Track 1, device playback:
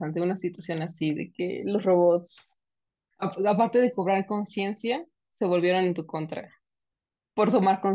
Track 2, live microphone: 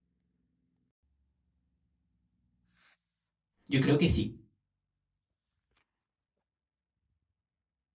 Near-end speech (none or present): present